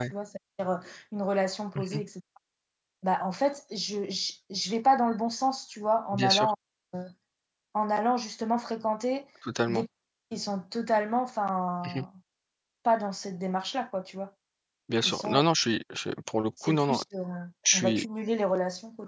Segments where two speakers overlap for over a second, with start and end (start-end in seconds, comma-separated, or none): none